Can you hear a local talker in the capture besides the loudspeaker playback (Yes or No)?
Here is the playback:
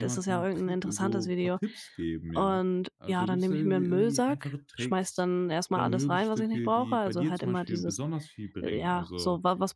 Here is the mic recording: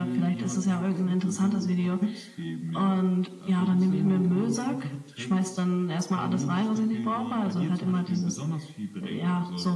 No